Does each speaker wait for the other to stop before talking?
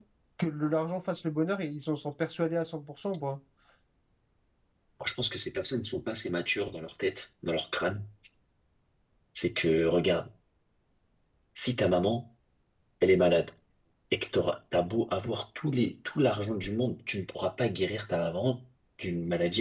Yes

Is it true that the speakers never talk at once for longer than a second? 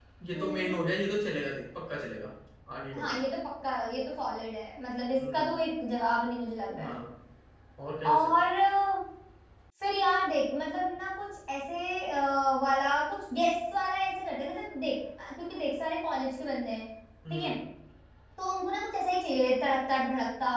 Yes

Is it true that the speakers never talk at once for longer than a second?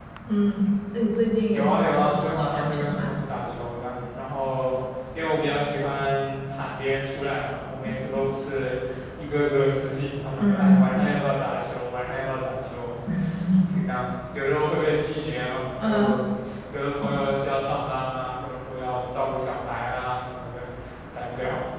No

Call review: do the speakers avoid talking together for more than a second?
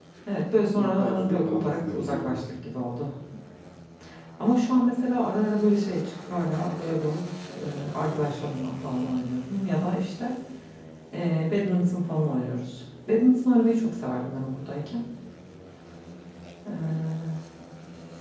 No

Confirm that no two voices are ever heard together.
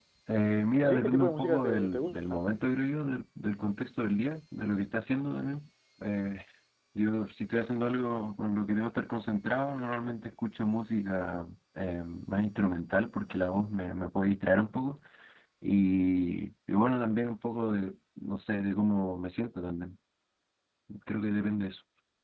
No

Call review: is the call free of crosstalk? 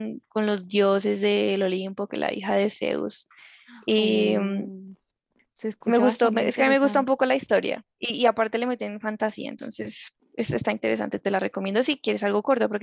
No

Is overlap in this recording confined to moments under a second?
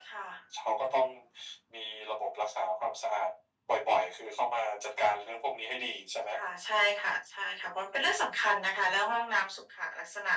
Yes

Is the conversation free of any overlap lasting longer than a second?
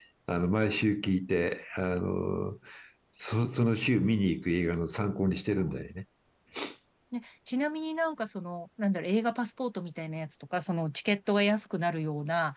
Yes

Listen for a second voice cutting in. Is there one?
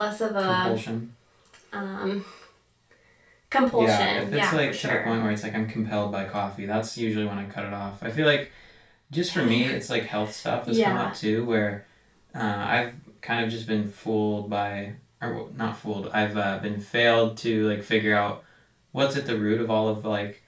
Yes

